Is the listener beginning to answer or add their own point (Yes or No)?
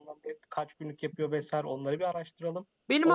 Yes